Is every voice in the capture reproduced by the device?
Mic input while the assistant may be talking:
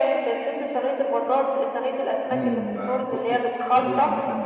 No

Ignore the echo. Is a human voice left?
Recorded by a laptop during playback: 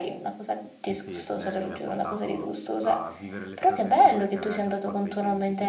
Yes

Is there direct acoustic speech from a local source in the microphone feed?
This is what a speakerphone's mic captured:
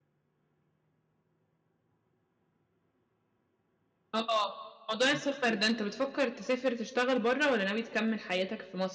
Yes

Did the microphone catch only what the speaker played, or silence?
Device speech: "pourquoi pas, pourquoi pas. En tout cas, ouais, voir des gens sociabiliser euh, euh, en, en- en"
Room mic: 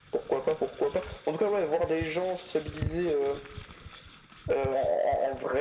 Yes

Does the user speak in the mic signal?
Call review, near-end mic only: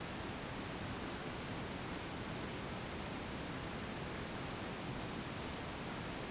No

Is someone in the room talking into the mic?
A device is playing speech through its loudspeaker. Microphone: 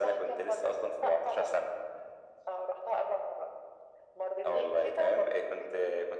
No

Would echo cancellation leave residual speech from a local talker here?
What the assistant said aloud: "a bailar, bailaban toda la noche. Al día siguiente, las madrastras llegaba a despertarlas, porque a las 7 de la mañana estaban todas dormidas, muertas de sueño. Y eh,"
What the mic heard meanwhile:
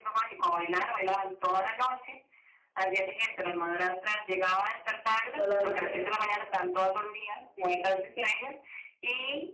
Yes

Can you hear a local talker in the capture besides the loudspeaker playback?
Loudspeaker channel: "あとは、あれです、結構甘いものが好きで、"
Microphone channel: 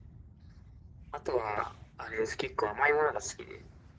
No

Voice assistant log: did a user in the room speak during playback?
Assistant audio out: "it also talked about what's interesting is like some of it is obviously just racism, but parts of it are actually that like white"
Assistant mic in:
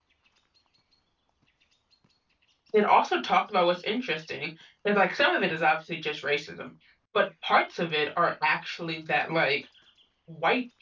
No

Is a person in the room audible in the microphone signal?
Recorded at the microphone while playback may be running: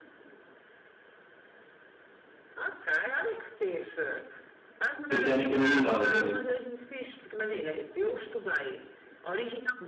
Yes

